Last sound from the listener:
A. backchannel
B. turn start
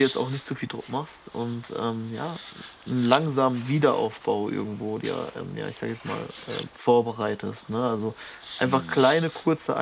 A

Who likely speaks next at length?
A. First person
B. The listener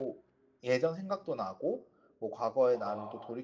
A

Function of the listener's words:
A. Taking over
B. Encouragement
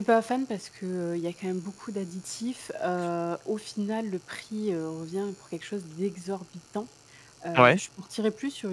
B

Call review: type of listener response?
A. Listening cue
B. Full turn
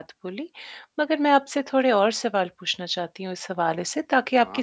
A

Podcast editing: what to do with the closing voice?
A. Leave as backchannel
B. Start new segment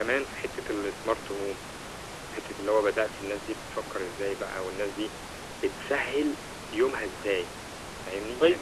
B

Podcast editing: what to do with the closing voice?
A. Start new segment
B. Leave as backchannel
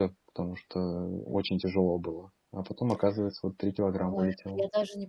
A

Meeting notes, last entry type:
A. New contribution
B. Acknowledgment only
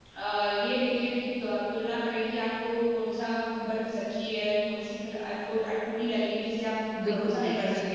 A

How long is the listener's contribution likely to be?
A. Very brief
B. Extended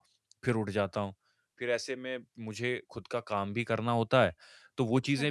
A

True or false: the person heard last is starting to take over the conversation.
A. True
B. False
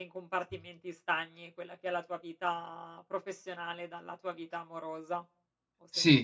A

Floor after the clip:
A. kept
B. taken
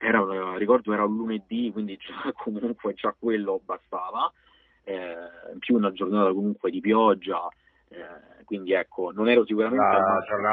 B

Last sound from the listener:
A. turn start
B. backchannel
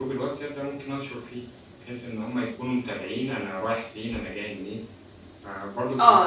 A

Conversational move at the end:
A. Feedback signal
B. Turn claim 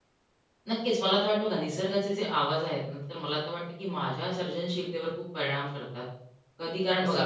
A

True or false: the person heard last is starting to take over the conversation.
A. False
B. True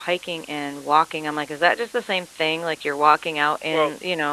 A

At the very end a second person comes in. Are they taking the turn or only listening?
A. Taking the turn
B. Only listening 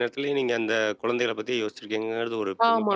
A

